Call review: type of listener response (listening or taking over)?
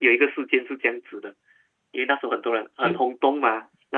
listening